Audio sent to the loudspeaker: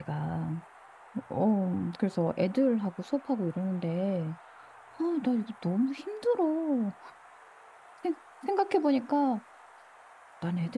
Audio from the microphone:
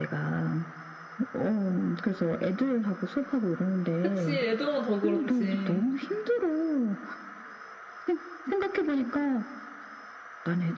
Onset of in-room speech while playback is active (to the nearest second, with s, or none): 4 s